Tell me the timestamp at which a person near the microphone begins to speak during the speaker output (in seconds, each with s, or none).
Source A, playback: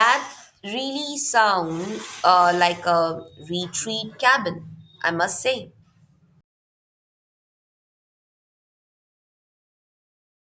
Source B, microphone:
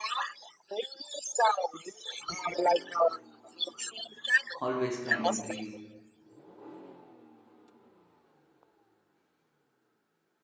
4.6 s